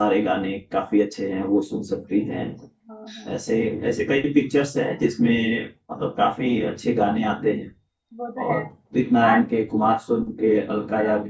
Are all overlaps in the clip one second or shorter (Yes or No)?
Yes